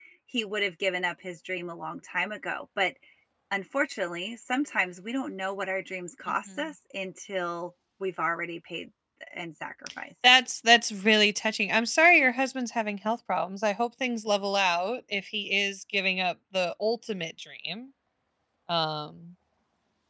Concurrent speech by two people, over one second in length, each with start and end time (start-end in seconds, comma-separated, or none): none